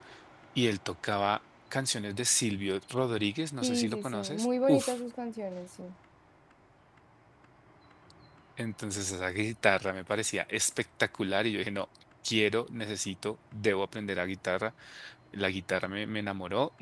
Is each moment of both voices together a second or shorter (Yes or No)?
No